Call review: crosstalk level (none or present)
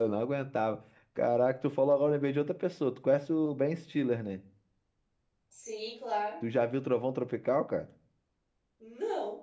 none